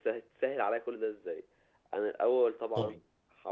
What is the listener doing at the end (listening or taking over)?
listening